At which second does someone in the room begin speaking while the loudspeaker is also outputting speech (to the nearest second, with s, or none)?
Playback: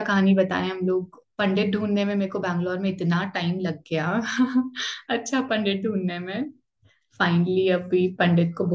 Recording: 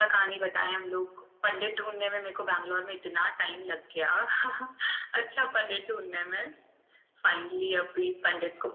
none